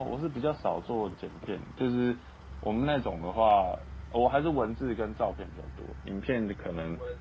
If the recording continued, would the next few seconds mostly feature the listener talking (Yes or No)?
Yes